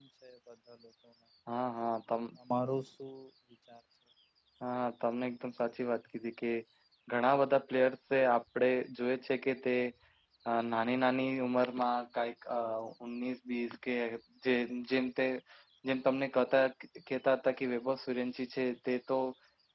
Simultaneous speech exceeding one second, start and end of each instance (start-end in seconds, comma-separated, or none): none